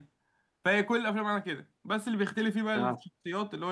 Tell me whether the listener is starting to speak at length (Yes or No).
No